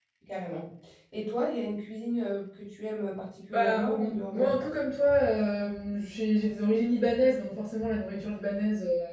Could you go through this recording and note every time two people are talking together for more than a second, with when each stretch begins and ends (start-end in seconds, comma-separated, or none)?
3.5-4.7